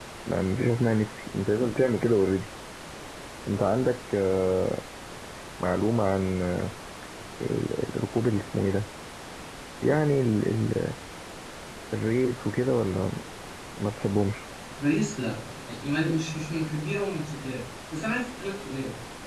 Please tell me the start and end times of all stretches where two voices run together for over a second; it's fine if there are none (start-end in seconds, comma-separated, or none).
none